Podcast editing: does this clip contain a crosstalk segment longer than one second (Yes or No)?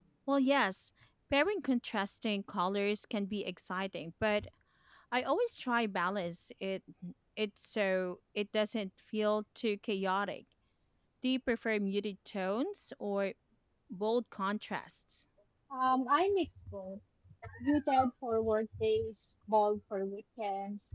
No